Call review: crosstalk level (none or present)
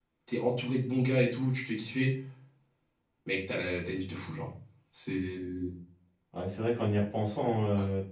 none